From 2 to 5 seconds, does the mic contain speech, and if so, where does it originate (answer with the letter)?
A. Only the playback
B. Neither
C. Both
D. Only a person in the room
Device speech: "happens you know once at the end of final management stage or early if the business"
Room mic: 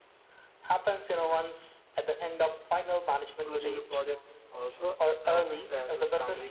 C